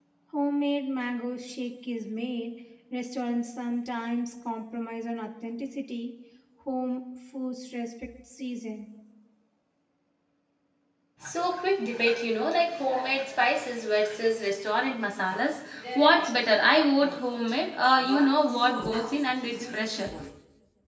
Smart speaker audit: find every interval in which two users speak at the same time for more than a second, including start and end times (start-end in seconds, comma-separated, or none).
none